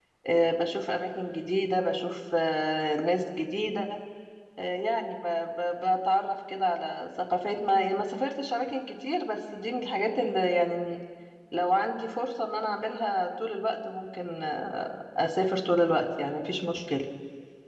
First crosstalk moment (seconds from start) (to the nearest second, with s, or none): none